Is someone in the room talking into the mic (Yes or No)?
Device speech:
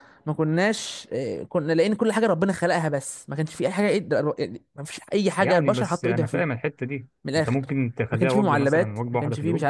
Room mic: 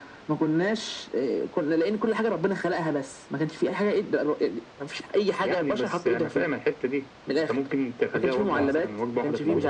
Yes